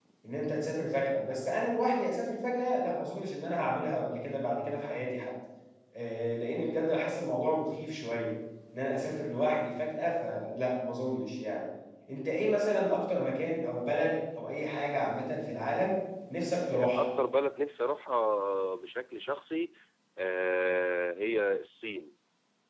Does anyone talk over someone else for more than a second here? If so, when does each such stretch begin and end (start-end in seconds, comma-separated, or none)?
none